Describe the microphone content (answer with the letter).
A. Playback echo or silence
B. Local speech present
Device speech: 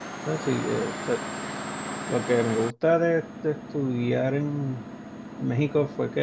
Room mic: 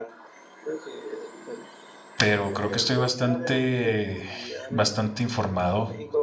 B